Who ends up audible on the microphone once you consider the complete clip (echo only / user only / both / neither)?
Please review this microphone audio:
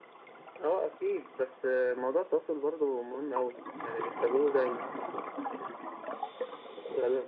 echo only